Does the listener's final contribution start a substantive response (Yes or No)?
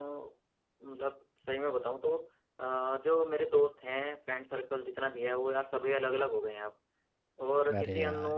No